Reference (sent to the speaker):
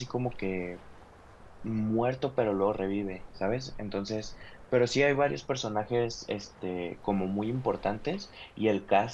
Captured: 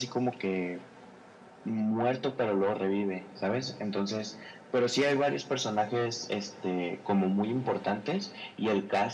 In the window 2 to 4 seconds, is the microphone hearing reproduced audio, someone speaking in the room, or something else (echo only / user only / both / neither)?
echo only